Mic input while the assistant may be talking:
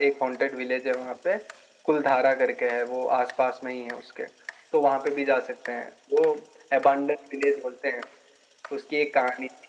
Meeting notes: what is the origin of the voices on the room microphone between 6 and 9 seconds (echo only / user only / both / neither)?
echo only